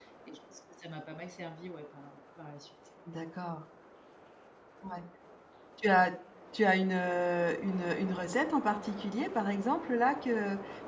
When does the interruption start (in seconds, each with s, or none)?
none